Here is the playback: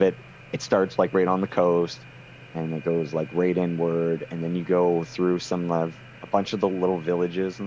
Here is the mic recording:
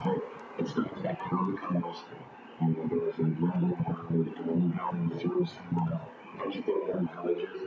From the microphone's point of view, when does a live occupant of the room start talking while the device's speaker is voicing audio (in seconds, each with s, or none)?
none